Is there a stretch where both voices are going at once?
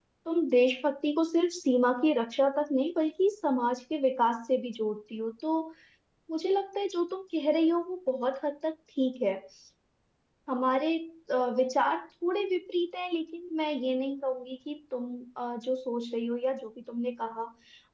No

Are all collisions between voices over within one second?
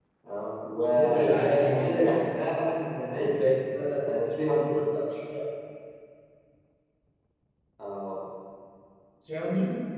No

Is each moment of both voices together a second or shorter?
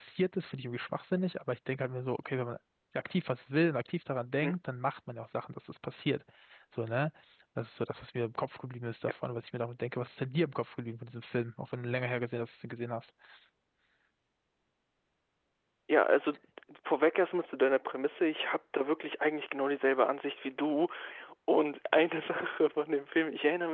Yes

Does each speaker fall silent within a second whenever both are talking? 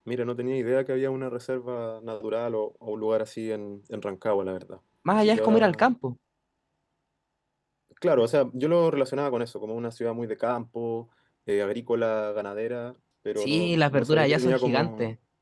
No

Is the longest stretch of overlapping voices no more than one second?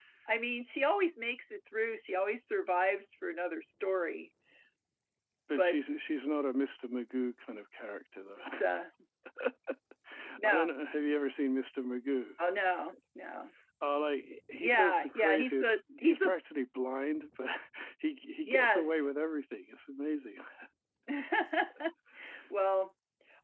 No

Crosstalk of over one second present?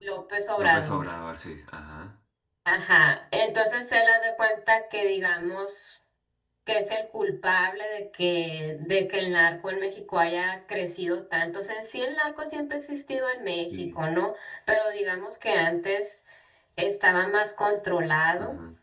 No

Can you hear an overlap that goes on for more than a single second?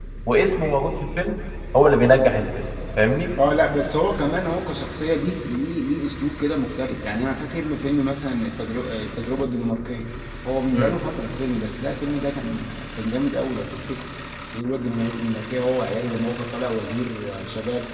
No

